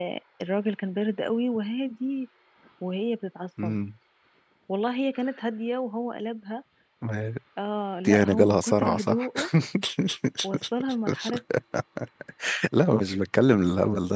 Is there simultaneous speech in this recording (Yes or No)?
Yes